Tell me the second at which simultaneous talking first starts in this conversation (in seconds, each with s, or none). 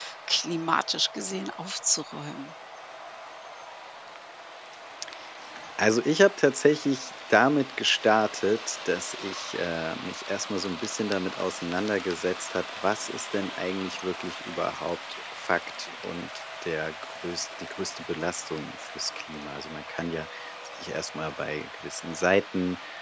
none